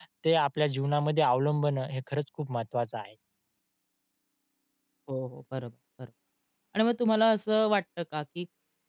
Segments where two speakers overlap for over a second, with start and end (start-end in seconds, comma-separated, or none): none